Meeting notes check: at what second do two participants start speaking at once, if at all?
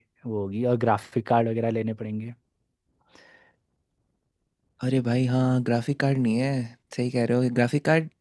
none

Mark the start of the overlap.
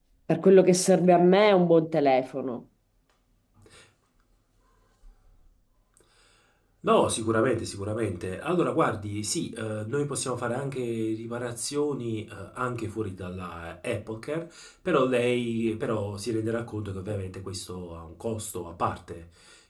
none

